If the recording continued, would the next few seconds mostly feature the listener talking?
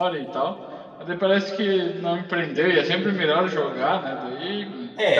Yes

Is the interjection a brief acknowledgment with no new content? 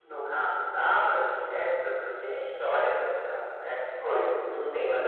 Yes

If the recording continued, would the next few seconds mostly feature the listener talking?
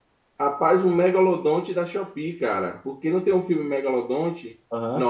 No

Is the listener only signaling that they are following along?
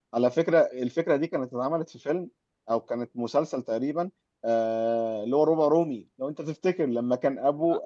Yes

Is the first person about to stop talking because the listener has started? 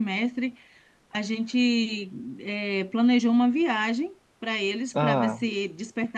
No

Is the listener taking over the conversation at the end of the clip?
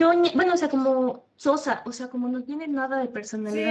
Yes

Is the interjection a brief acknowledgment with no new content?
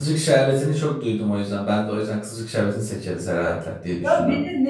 No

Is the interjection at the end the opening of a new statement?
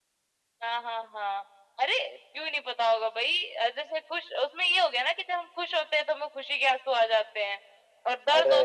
No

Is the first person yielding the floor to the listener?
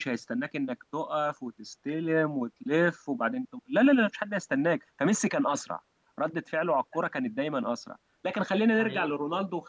No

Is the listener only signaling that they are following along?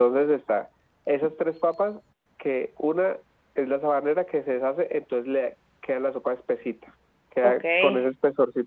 Yes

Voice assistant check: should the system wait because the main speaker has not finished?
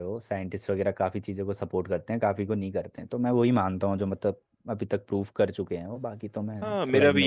No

